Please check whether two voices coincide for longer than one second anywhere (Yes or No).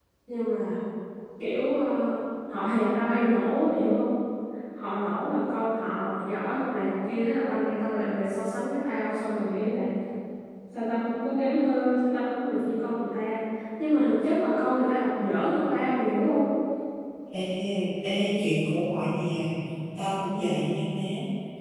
No